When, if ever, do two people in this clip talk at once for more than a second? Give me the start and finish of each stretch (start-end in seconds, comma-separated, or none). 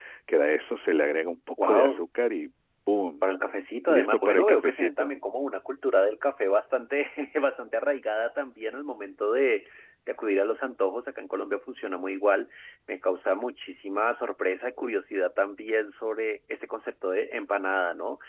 3.9-5.1